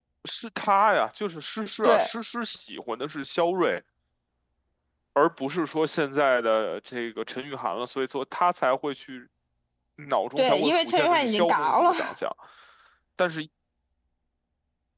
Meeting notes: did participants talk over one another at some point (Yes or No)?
Yes